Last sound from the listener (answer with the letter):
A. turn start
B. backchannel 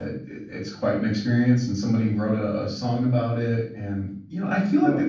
B